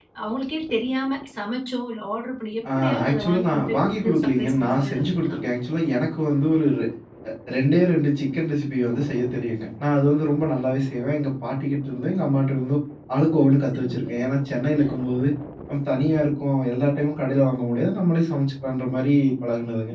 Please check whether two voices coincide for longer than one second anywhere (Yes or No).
Yes